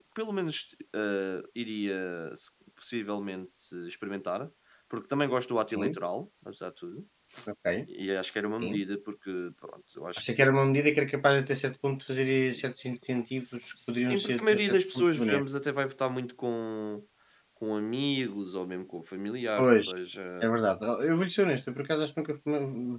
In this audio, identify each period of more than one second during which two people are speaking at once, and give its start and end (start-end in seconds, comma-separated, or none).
13.2-15.4